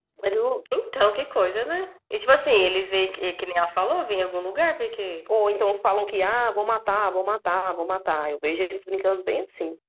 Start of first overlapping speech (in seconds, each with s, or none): none